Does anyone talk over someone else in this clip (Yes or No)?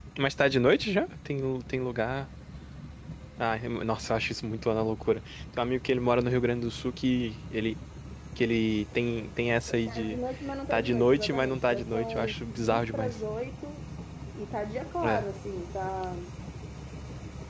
Yes